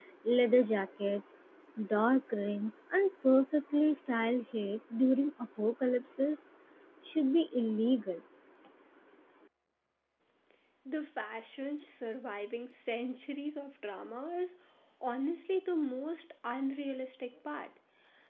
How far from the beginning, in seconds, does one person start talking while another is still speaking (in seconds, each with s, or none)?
none